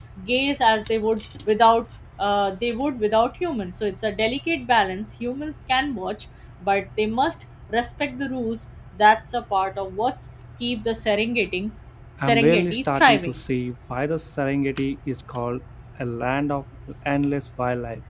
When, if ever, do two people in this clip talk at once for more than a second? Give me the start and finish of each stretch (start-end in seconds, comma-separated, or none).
12.2-13.4